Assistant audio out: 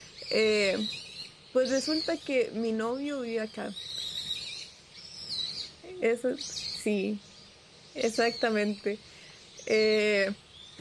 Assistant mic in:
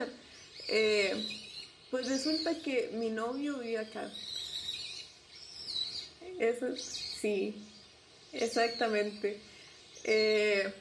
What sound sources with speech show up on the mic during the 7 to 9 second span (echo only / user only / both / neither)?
echo only